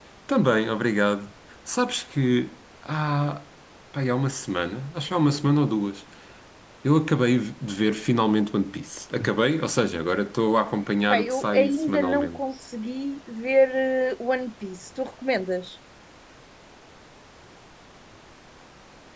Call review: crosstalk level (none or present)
present